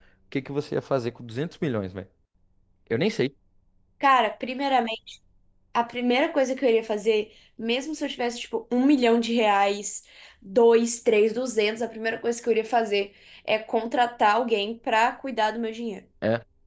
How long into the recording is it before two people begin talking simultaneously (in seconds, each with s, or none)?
none